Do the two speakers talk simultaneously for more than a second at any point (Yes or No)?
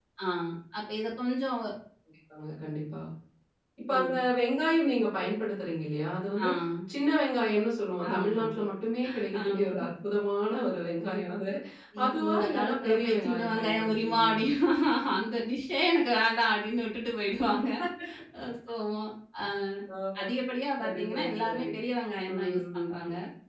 Yes